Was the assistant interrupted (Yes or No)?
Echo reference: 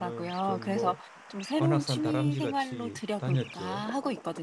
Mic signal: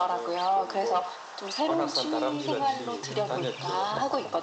Yes